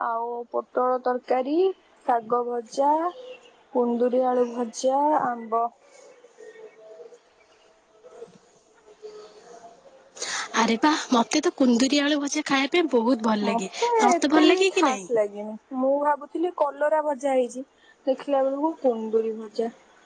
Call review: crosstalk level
present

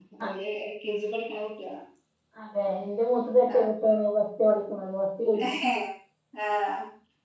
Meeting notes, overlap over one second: none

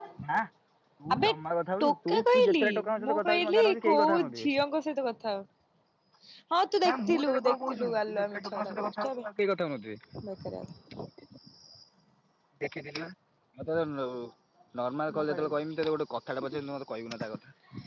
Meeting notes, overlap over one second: present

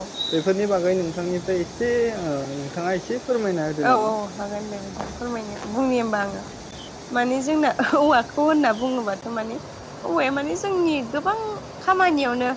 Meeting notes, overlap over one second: none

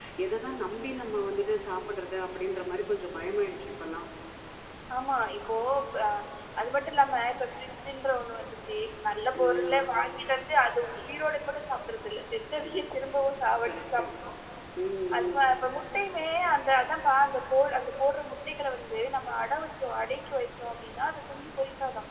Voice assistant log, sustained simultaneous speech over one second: none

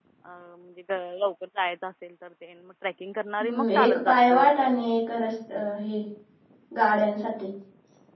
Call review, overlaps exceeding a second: present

